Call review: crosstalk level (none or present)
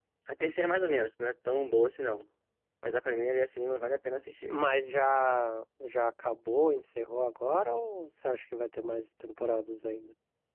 none